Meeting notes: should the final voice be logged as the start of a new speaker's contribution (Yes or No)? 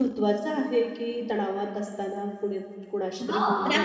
Yes